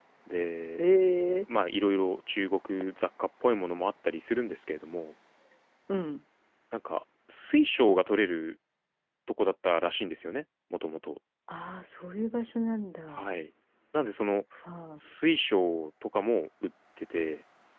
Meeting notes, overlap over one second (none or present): none